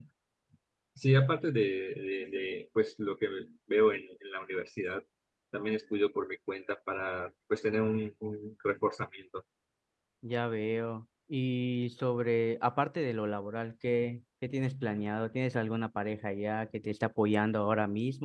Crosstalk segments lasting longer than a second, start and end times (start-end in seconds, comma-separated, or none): none